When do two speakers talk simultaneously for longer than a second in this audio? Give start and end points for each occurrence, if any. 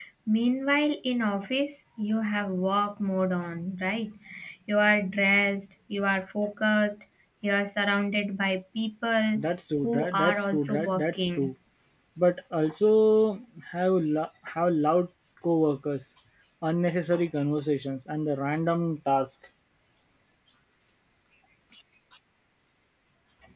9.8-11.5

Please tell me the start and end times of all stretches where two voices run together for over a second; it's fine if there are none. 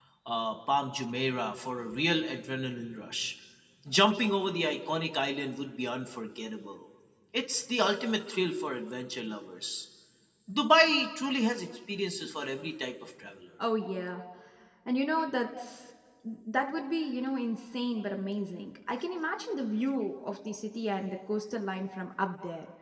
none

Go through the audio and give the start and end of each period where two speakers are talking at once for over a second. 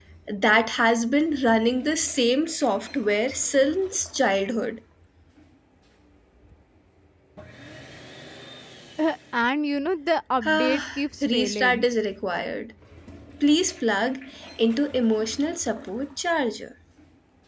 10.4-11.8

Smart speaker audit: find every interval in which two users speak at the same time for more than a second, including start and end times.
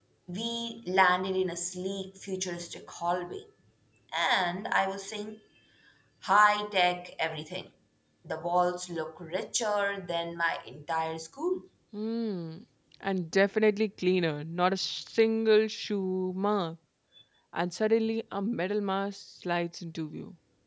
none

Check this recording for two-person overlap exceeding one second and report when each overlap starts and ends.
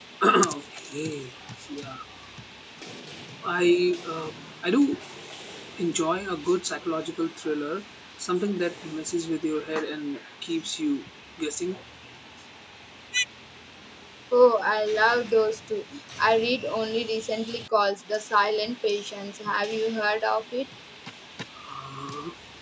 none

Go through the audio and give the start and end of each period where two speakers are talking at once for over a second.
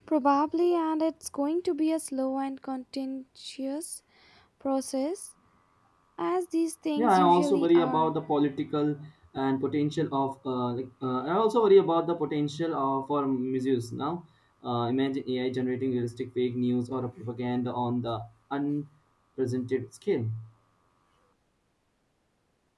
7.0-8.2

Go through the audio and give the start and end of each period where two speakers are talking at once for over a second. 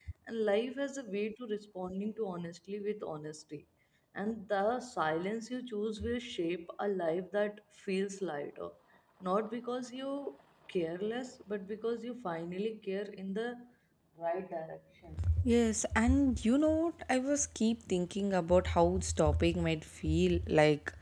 none

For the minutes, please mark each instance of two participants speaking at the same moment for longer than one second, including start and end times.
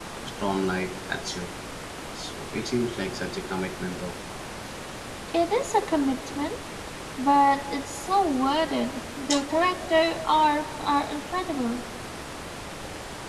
none

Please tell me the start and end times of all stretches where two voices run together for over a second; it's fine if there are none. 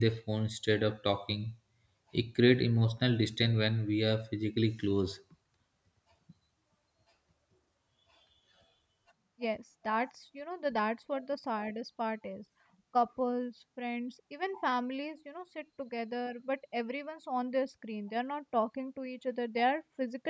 none

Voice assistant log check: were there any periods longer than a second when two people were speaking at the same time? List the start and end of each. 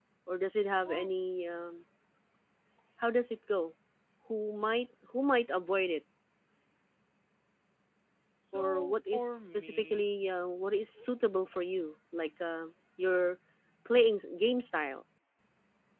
8.5-10.1

